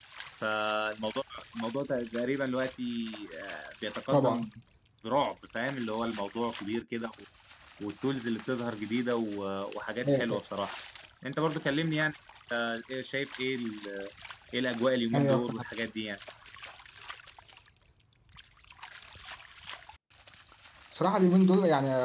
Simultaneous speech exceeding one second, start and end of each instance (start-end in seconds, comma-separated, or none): none